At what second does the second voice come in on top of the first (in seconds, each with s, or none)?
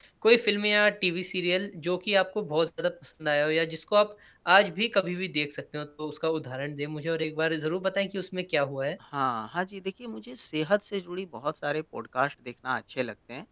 none